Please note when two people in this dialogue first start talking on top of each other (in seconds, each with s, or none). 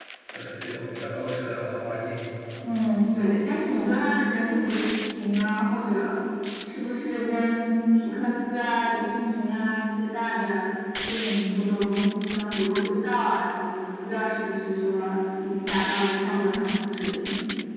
none